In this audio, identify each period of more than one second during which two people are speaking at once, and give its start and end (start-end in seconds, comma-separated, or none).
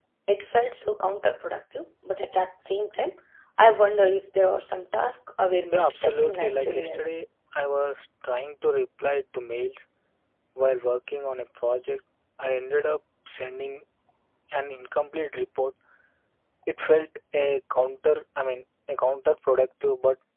5.7-7.0